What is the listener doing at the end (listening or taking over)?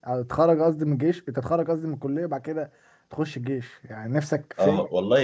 taking over